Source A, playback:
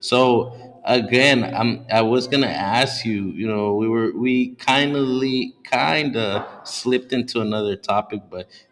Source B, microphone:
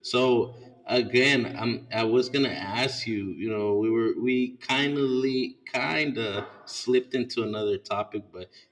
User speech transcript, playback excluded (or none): none